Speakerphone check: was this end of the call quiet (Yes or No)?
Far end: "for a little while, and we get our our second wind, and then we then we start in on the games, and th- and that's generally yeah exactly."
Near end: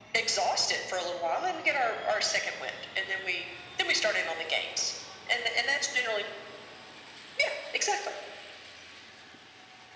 Yes